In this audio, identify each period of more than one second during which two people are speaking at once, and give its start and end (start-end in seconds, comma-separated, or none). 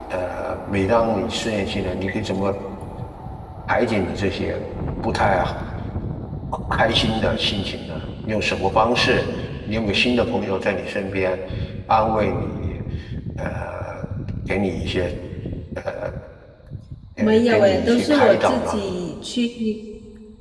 17.2-18.8